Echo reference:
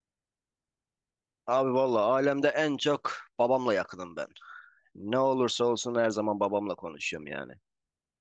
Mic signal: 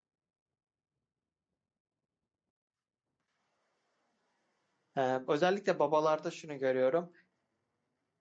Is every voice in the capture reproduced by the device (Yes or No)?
No